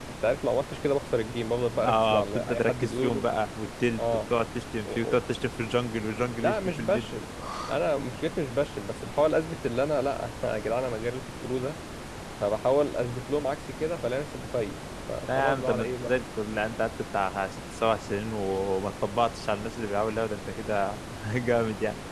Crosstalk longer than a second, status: present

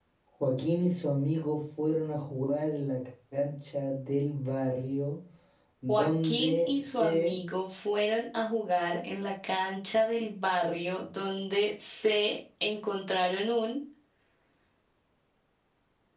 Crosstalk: present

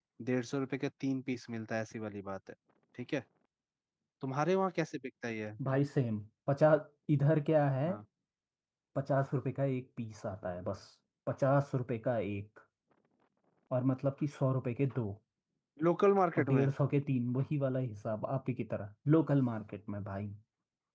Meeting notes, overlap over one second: none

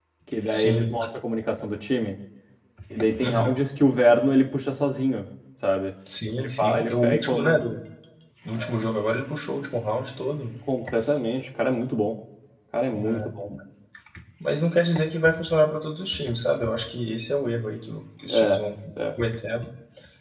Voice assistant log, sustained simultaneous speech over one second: present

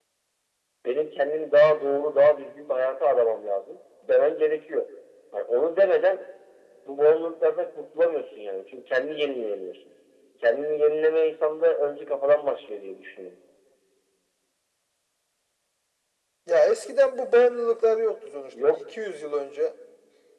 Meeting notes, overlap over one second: none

